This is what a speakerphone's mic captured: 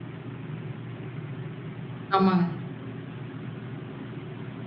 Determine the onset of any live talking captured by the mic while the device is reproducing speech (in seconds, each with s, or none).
2.1 s